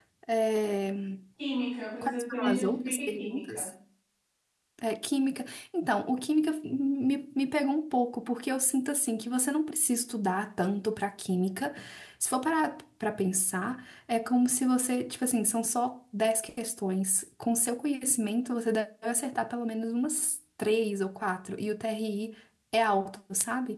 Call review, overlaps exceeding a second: present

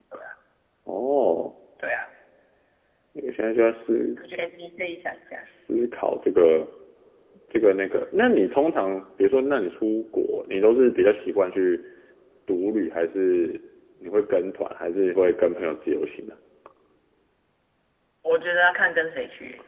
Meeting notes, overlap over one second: none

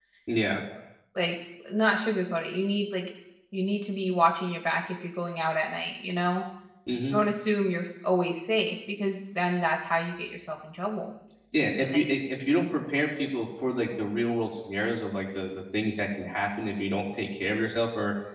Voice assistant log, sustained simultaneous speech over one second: none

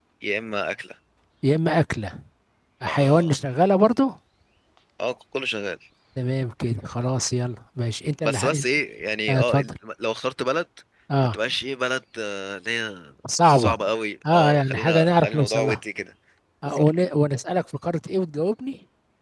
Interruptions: present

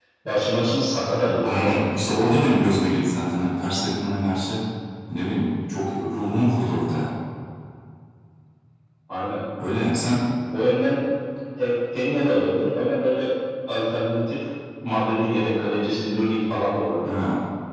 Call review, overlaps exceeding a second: none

